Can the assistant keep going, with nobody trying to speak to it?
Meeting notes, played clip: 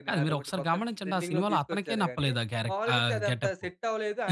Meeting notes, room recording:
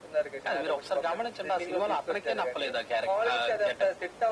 Yes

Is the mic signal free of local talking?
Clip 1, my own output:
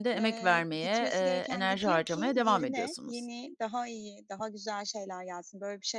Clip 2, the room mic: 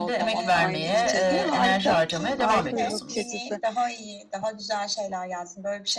No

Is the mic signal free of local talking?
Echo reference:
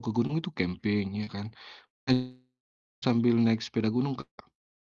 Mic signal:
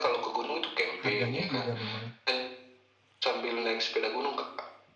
No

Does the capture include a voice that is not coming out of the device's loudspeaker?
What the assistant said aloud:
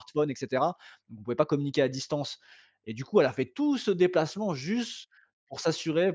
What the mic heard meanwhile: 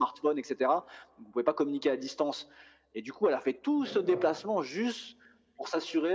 Yes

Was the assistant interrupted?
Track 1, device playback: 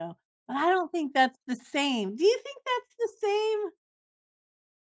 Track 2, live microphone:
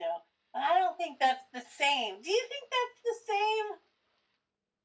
No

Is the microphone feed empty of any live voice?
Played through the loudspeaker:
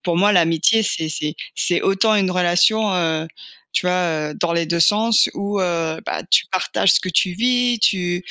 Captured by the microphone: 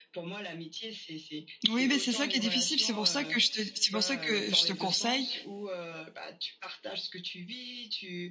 No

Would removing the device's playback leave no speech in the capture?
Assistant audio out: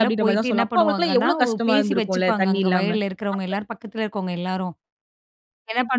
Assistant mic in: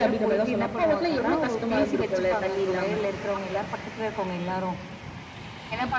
Yes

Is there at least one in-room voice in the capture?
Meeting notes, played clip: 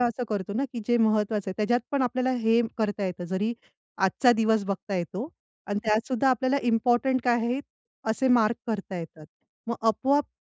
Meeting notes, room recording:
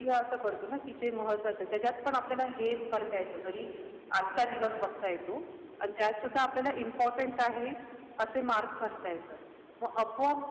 No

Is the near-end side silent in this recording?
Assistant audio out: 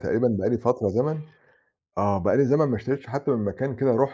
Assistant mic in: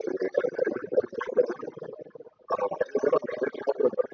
Yes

